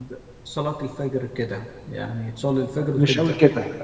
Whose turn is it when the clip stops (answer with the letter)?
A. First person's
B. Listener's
B